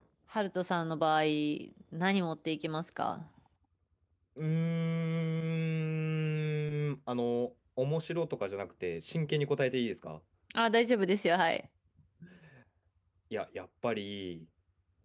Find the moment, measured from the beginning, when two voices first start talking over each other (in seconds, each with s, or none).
none